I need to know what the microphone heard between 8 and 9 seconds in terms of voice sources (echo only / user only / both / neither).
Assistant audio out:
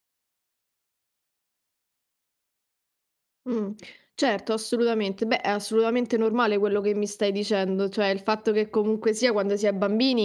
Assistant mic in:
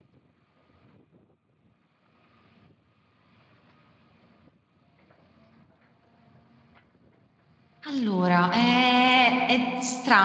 user only